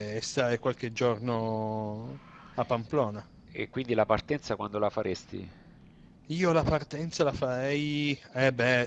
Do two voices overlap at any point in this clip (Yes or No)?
No